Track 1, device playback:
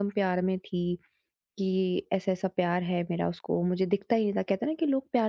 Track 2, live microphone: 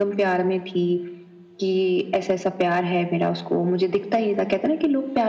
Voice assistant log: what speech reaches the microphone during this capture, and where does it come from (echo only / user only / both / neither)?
echo only